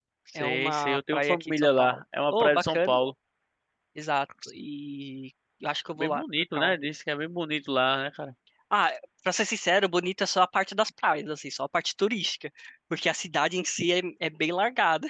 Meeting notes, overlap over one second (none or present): present